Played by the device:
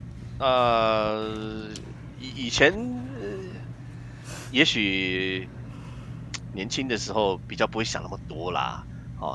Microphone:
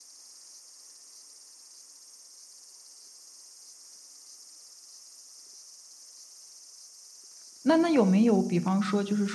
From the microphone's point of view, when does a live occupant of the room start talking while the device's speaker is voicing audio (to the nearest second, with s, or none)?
8 s